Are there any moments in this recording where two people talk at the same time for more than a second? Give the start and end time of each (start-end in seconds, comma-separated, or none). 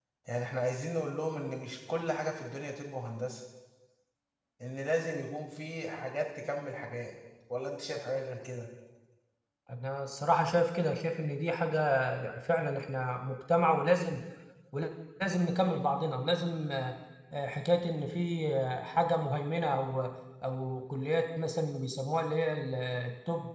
none